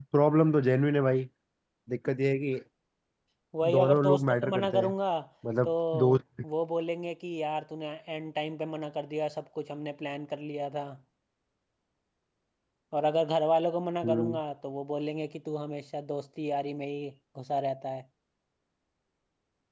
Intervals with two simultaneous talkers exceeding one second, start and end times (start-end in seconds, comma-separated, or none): 3.7-4.9